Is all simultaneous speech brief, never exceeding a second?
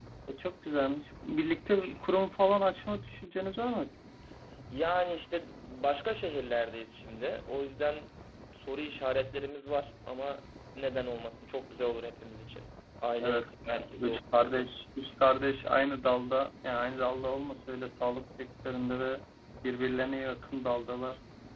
No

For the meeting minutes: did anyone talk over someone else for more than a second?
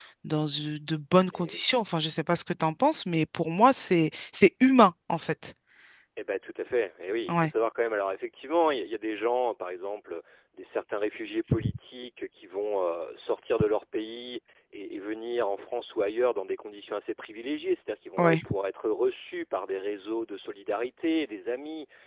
No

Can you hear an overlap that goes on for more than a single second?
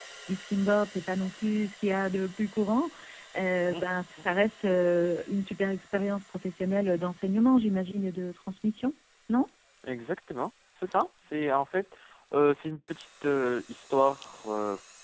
No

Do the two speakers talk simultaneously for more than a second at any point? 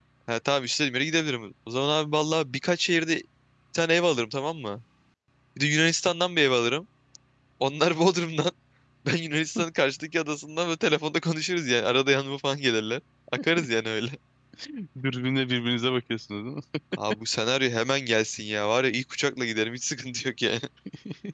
No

